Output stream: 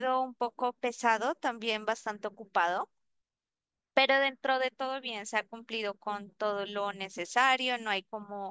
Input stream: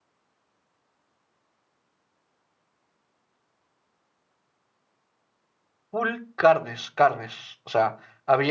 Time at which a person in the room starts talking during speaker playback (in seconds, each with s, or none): 5.9 s